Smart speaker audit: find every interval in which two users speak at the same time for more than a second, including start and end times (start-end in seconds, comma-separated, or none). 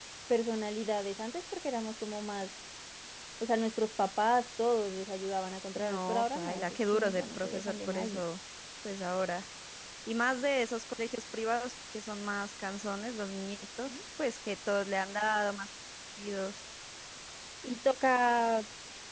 5.8-8.2